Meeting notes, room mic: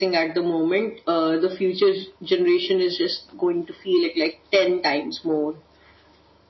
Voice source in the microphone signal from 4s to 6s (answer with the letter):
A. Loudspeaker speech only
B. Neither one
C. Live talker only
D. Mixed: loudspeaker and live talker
A